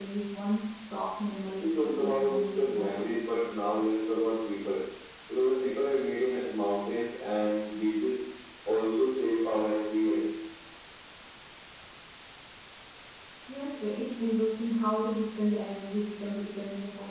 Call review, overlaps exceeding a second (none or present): present